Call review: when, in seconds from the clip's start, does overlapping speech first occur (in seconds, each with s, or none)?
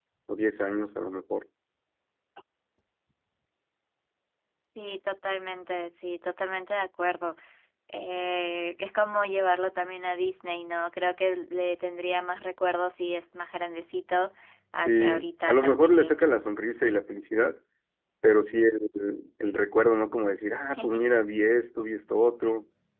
14.8 s